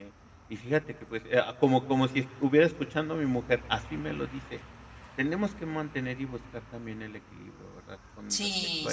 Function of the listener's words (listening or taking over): taking over